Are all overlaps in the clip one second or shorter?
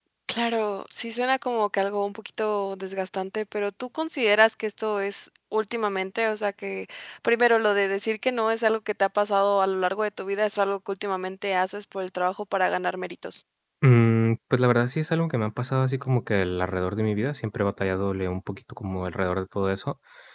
Yes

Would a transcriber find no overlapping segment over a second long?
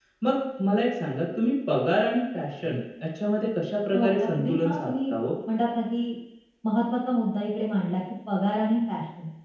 No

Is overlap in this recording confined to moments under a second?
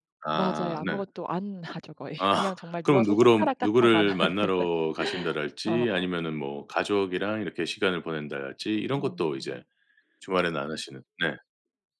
No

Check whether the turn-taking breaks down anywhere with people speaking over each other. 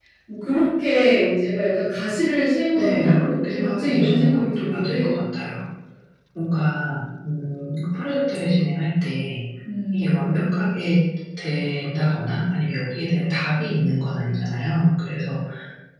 Yes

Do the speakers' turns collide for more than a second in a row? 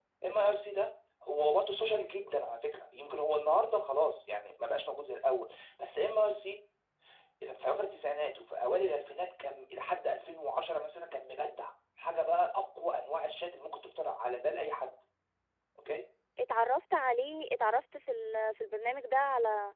No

